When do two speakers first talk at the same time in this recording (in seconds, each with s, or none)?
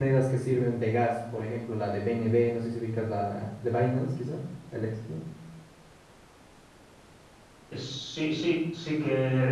none